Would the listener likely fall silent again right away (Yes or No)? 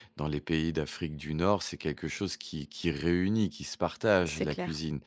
Yes